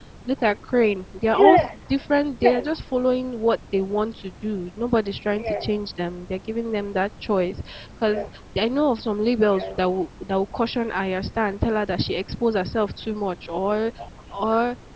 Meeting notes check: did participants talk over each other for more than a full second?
No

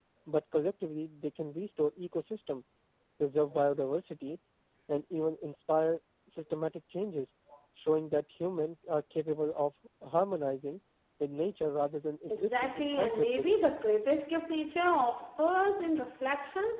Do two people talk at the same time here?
Yes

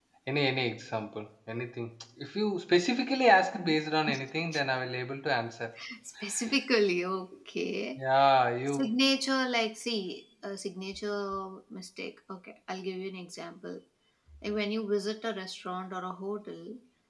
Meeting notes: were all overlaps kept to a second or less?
Yes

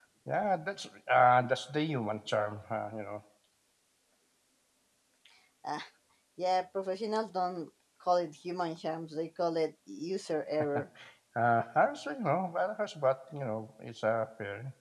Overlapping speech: No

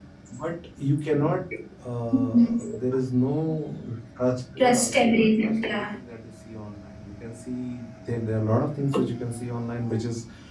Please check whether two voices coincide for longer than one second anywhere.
Yes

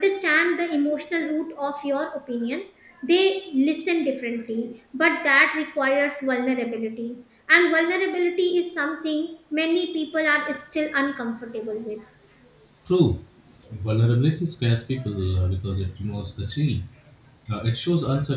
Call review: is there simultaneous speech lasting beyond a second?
No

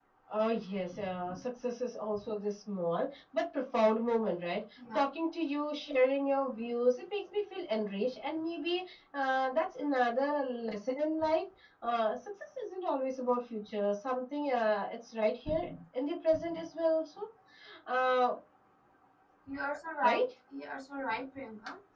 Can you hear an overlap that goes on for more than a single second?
No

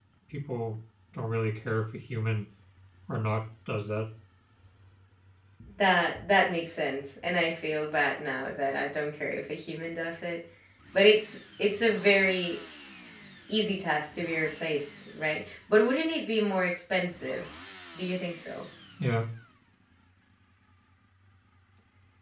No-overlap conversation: Yes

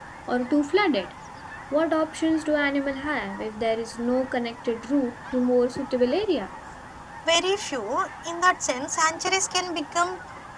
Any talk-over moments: No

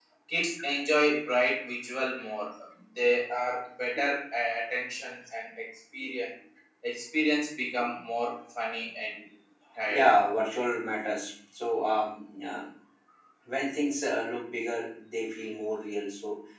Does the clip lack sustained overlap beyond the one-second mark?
Yes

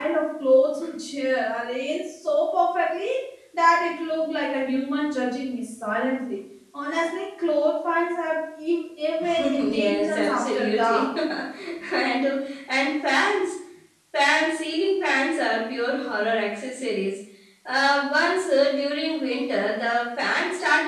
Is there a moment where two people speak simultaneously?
Yes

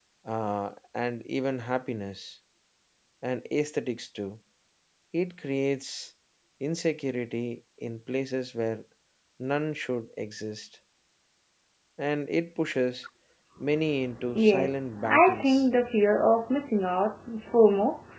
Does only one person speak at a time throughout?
No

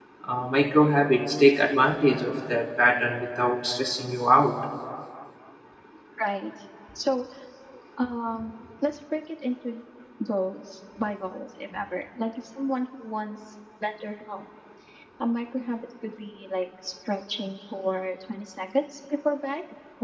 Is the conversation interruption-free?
Yes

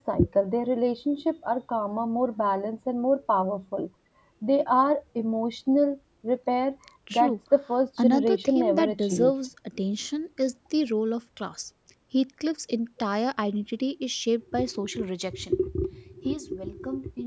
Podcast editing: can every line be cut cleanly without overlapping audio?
No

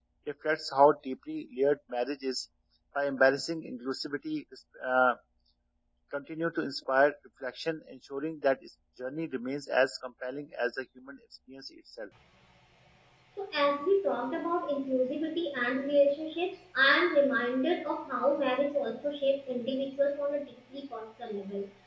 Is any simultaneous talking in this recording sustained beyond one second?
No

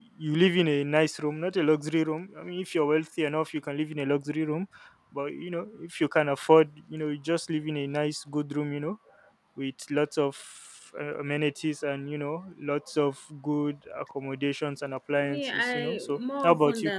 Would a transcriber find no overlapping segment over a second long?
No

